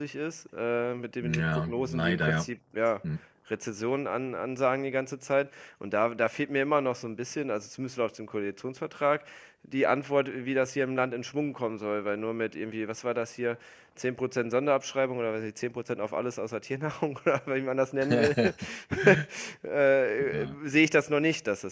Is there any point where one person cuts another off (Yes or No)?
Yes